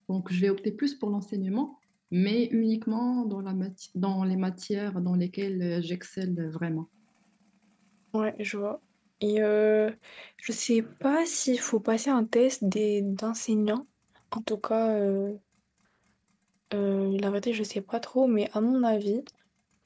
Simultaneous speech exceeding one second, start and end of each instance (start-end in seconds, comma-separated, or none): none